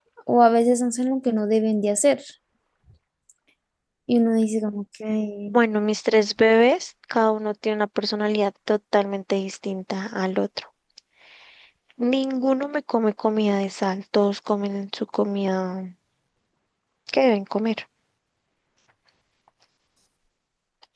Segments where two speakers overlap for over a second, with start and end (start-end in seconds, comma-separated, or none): none